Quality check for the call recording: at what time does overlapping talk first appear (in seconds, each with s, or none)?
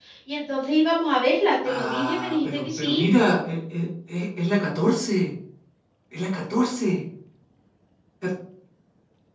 1.6 s